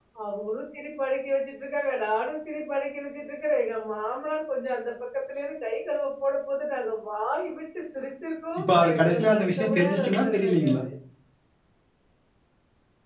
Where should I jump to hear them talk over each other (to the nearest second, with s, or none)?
9 s